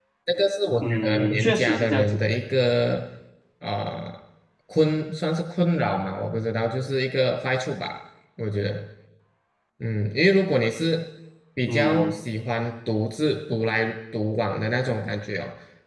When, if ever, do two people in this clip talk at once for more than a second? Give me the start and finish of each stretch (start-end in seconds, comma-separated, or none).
0.8-2.2